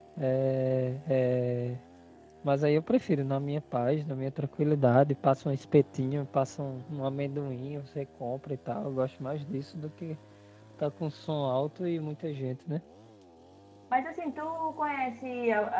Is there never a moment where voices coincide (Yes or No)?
Yes